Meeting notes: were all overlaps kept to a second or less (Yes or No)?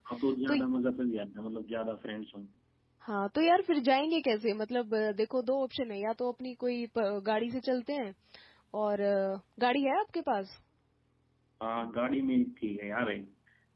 Yes